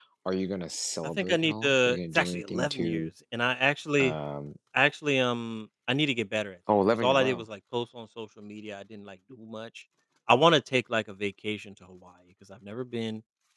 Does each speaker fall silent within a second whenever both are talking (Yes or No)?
No